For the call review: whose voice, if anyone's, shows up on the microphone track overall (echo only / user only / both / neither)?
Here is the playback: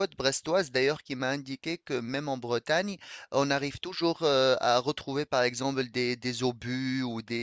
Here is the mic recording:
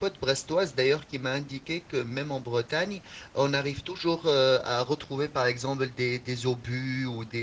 echo only